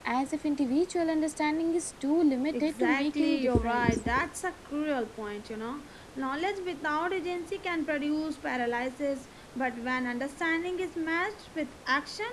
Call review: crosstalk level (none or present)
present